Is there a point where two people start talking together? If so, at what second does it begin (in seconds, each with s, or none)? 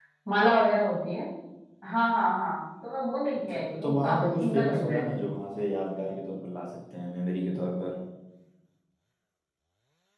3.5 s